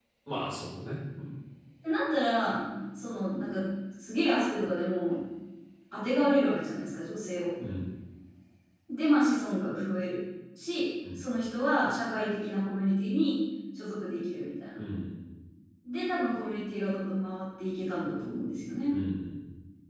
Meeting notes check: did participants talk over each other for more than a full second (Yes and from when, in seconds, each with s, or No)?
No